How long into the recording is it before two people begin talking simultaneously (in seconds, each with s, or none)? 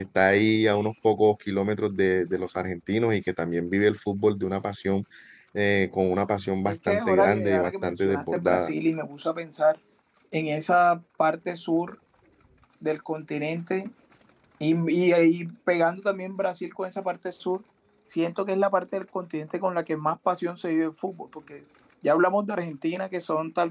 6.6 s